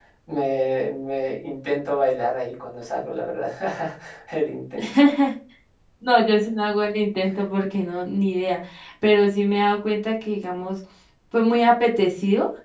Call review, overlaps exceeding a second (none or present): none